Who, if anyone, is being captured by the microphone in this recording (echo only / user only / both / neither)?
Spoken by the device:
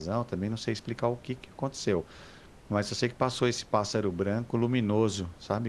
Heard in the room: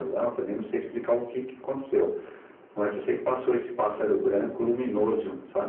echo only